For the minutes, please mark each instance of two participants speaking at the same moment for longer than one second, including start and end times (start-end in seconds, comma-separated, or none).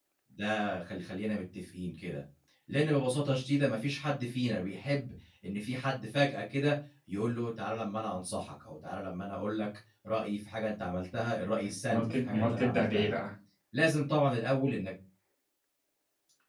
11.6-13.1